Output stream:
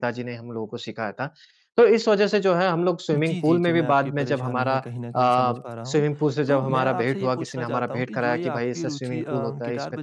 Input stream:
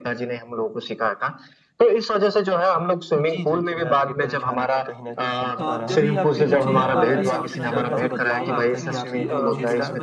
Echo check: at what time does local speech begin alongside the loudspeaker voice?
5.6 s

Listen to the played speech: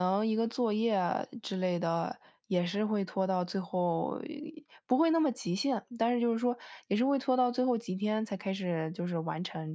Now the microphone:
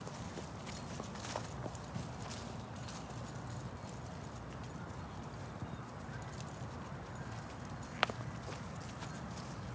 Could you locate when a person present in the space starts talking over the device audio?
none

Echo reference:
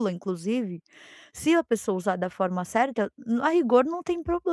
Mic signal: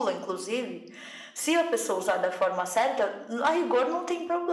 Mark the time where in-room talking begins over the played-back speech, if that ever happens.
none

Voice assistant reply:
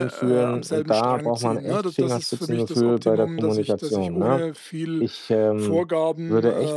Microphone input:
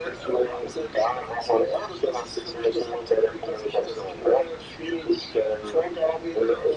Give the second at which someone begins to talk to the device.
none

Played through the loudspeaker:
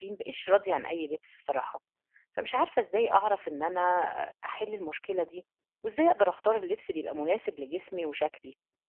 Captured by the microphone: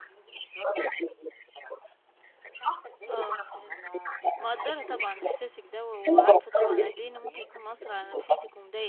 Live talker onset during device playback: 3.1 s

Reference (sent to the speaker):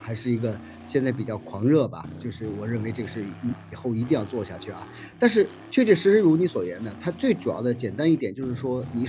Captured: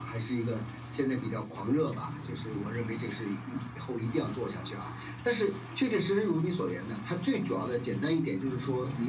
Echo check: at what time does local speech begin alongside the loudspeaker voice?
none

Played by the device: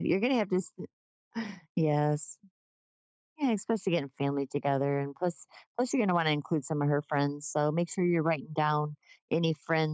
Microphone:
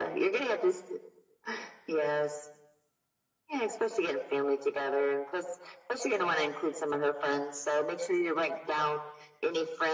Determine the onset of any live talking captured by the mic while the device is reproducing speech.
none

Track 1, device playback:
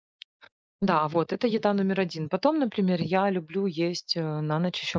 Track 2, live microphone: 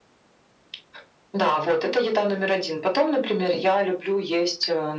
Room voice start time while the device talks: none

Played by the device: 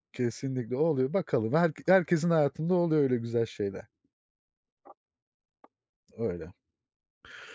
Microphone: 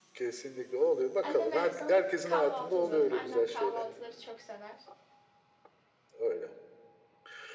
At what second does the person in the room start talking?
1.2 s

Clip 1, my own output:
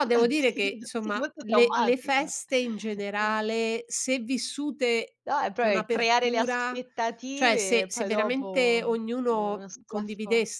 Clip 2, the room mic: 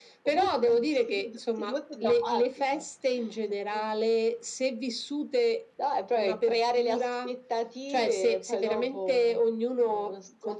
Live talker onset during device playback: none

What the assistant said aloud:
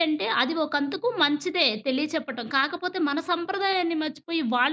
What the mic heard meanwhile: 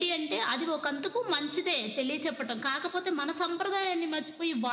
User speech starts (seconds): none

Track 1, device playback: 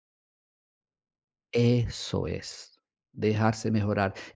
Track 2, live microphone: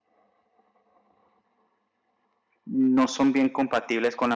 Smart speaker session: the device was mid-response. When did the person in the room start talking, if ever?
2.6 s

